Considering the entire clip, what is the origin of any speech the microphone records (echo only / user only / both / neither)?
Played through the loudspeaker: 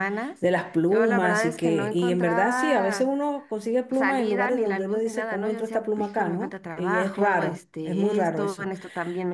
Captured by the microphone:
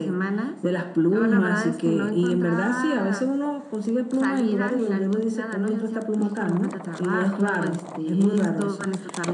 echo only